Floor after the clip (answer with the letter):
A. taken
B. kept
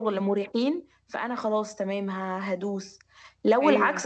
B